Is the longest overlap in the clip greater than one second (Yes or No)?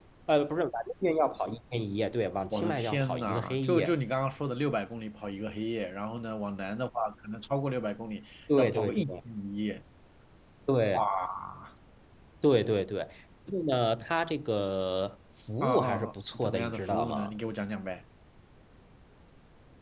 Yes